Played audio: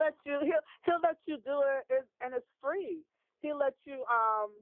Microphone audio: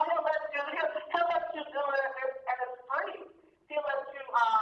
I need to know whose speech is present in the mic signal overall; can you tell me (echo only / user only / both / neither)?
echo only